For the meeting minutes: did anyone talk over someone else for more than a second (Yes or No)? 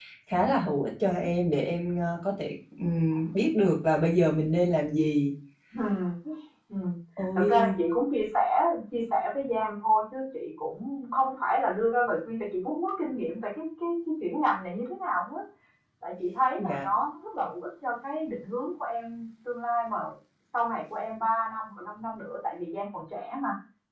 No